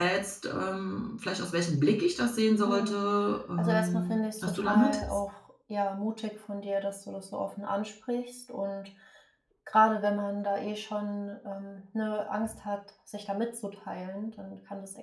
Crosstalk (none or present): present